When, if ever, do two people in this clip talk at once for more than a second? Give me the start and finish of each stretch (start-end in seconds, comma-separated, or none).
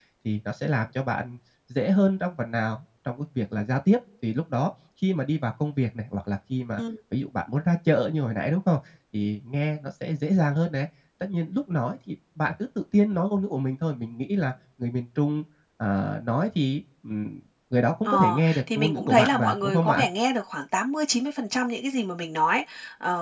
18.0-20.1